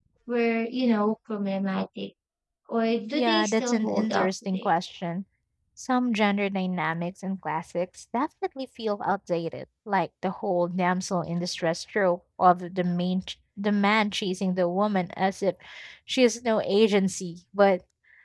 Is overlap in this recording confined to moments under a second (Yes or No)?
No